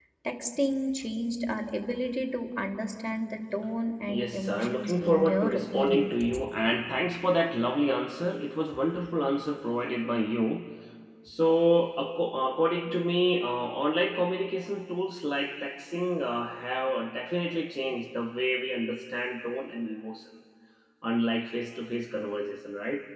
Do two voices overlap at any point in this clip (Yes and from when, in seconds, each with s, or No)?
Yes, from 4.1 s